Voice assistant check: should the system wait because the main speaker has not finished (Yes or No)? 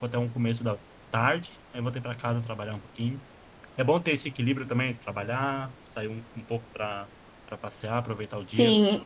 No